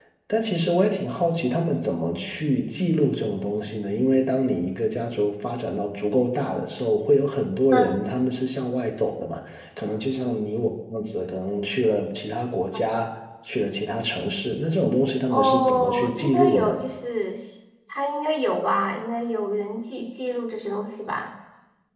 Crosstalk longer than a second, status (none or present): present